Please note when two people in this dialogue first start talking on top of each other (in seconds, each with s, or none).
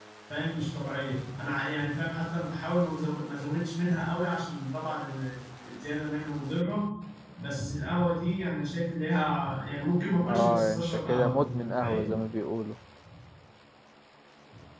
10.2 s